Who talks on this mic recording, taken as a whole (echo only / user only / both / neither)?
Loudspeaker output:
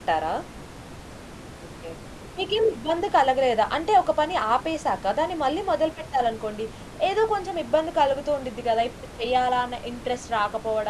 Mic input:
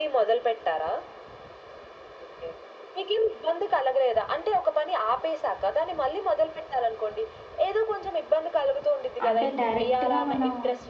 both